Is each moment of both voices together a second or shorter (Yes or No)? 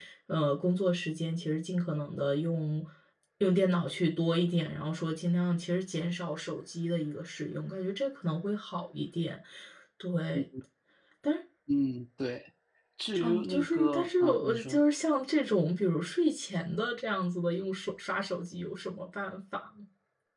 No